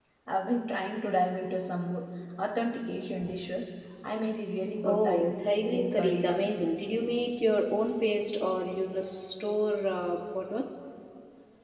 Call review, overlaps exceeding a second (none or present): present